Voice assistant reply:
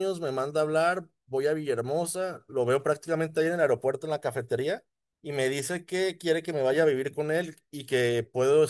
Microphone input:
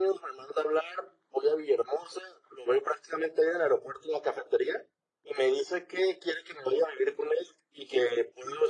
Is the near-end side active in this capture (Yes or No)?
No